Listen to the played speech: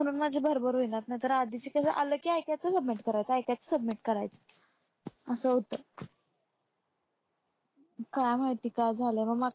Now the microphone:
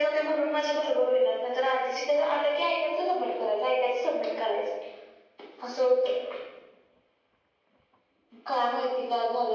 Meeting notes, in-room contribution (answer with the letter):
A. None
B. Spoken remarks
A